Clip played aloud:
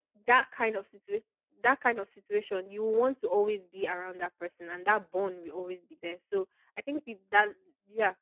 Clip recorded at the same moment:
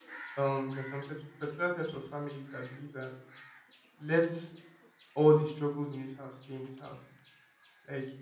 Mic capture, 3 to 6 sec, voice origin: user only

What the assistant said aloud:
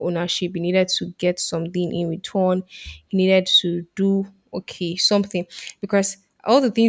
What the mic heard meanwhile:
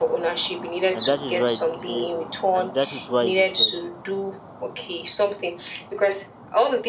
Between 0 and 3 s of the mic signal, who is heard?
both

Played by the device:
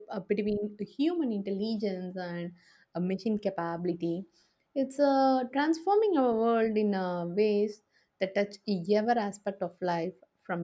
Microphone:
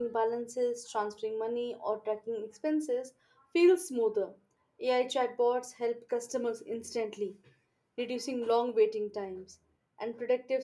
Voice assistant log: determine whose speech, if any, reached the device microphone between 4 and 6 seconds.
user only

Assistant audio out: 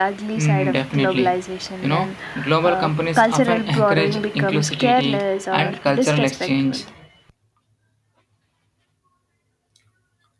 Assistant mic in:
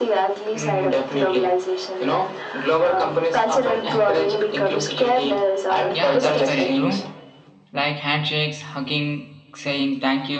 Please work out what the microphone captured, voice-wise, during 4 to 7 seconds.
both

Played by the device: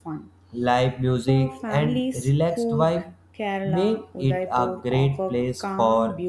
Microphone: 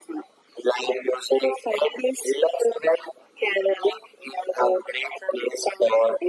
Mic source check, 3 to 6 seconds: echo only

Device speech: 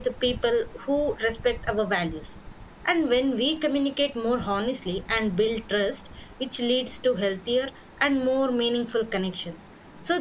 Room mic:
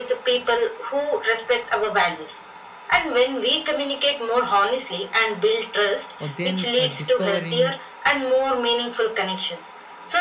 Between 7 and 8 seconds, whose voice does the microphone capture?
both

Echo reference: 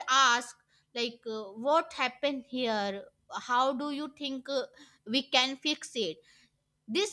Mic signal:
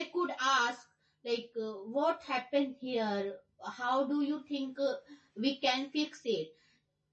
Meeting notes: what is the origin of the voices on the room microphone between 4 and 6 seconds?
echo only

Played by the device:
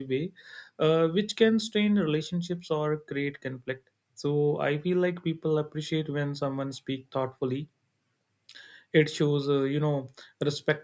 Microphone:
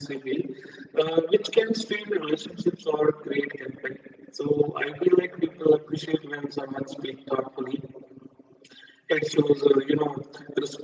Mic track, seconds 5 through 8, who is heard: echo only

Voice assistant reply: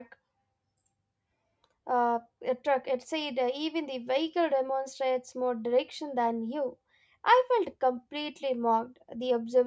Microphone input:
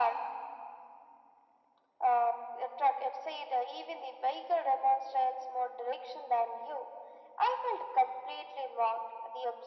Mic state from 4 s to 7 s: echo only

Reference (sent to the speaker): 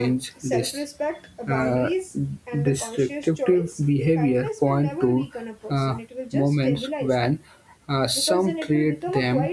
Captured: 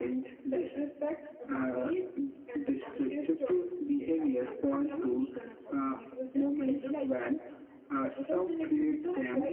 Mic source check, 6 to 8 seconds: echo only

